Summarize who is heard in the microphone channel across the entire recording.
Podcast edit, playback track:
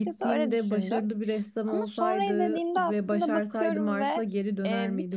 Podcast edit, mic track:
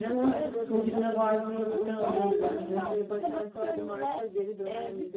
both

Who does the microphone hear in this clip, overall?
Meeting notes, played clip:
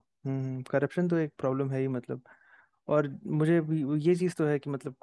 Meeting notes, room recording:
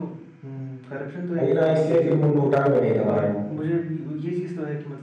both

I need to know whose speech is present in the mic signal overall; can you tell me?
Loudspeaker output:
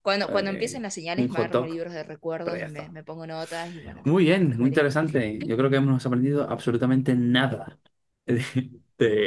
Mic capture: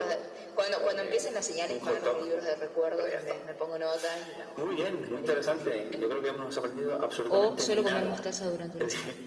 both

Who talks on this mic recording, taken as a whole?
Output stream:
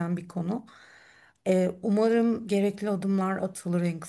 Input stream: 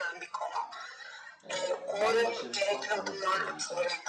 both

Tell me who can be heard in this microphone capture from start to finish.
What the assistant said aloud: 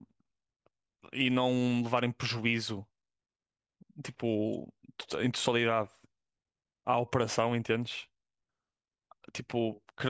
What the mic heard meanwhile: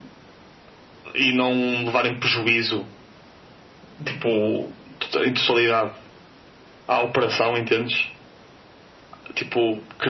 echo only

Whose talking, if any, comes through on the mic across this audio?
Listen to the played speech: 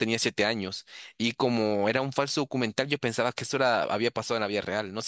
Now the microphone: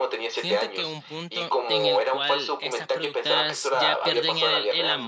both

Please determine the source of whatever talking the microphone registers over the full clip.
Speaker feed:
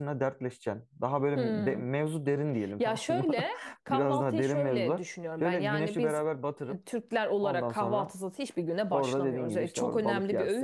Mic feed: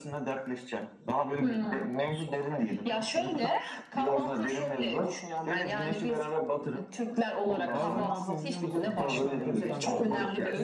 both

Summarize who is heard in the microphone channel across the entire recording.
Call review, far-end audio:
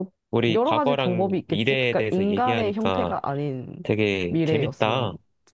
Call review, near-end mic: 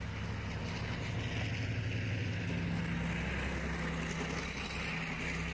neither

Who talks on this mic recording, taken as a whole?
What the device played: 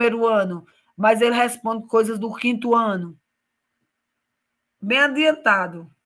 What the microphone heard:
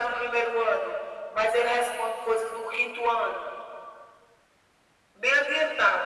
echo only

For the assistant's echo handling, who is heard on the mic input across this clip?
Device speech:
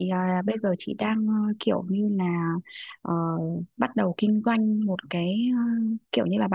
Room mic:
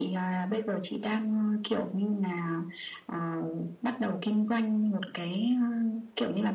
echo only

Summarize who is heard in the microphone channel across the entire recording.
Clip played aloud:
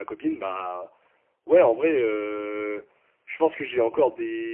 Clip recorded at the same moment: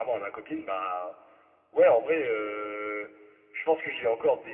echo only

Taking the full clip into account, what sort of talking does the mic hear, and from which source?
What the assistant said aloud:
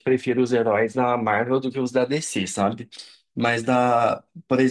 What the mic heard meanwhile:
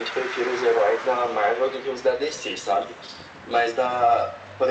echo only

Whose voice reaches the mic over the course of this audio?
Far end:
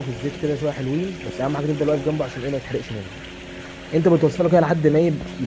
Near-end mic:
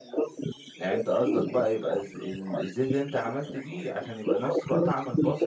both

